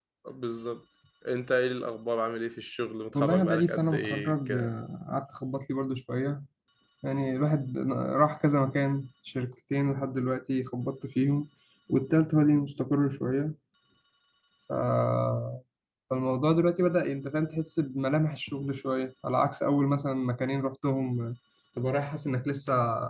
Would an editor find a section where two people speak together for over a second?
Yes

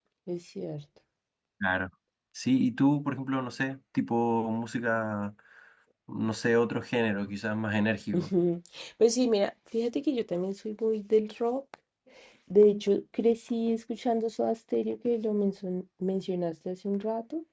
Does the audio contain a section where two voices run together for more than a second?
No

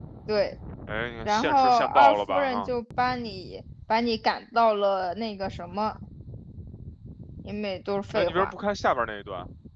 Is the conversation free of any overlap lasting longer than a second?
No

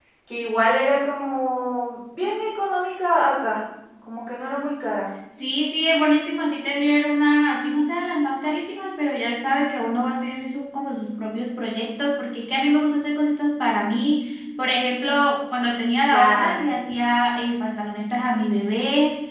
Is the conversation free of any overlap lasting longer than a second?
Yes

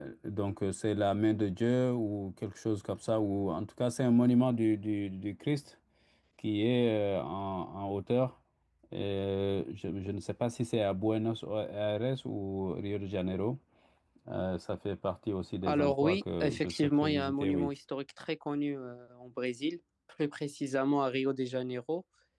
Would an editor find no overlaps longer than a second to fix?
No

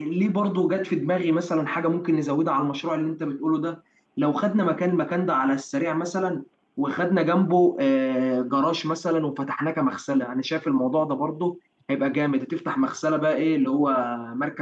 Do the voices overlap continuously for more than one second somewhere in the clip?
No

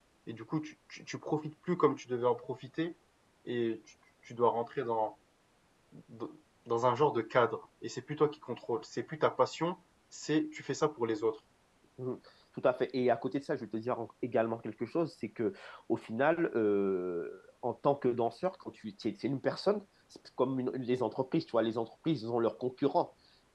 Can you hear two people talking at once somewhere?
No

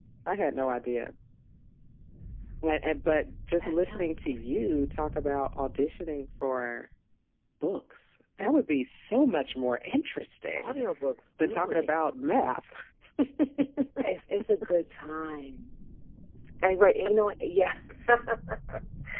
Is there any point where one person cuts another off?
Yes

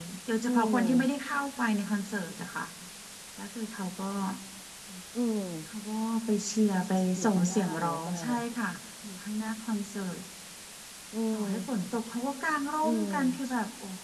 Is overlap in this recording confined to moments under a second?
No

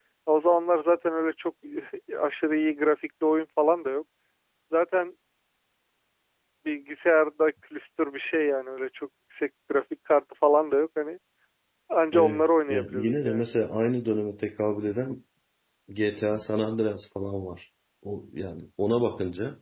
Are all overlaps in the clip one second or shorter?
No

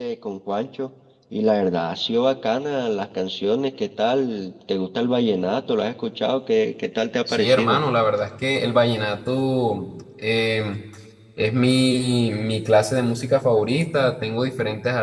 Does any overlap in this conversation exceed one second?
No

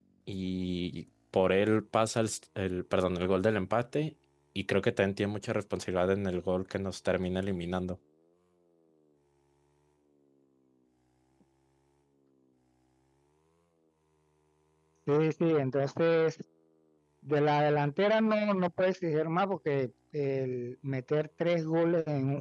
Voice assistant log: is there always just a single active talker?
Yes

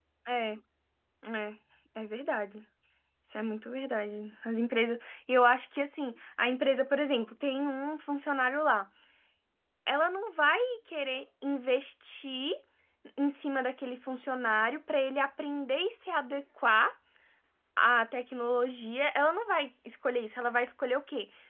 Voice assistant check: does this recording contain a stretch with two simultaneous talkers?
No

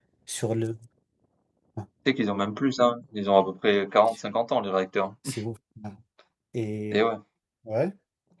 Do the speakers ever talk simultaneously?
No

